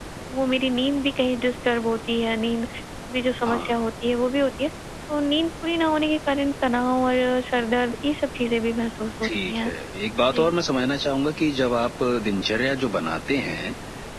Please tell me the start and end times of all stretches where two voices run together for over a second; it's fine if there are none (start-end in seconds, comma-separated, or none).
none